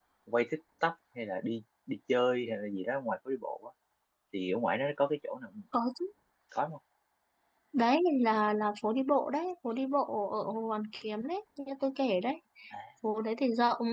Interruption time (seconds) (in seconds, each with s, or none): none